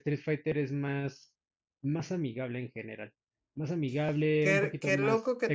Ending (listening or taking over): taking over